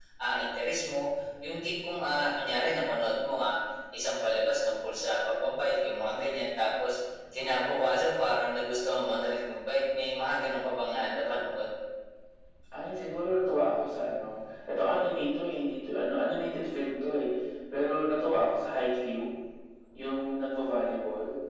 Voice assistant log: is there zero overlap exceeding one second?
Yes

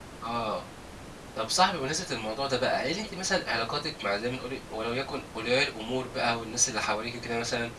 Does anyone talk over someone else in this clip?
No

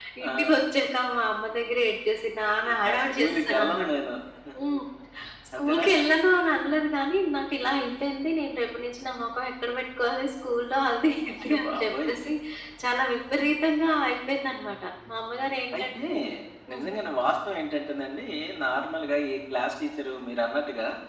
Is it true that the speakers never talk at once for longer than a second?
No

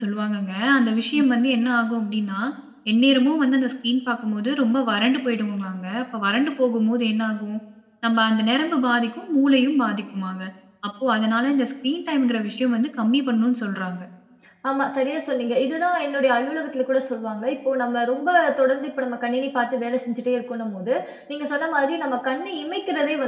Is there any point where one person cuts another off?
No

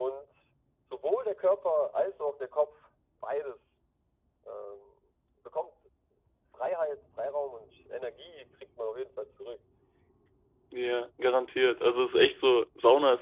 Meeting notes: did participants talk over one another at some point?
No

